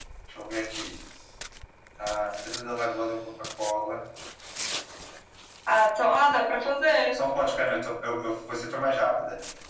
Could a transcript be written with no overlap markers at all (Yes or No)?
Yes